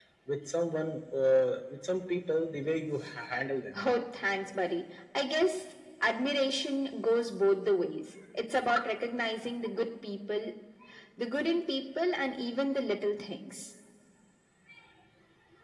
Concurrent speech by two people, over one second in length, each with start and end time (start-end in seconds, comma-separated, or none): none